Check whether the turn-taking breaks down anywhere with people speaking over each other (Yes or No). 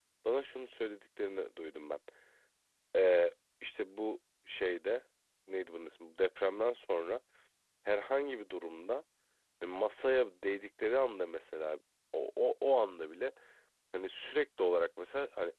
No